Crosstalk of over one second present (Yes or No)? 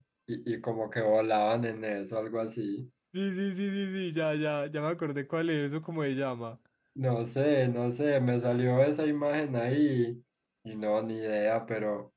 No